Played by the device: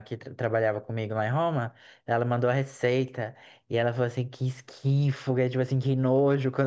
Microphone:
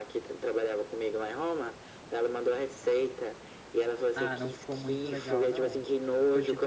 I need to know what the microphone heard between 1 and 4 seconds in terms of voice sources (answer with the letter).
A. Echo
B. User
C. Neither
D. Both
A